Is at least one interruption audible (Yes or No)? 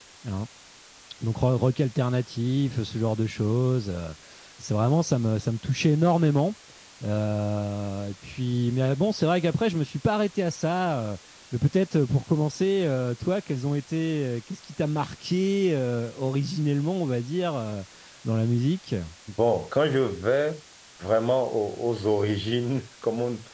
No